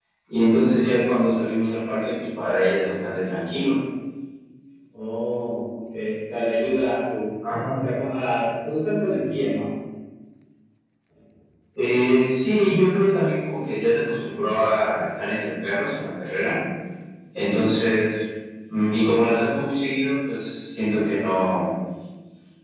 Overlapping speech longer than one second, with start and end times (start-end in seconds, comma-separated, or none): none